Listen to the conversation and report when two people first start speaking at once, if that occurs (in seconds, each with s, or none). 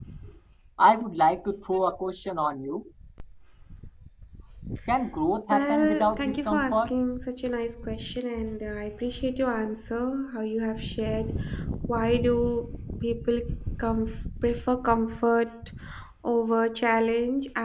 5.5 s